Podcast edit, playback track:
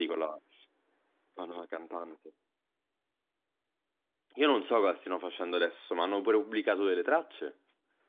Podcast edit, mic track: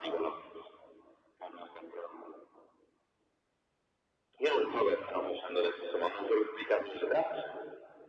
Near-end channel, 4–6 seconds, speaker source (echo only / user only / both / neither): echo only